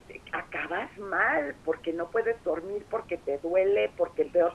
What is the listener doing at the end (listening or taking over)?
listening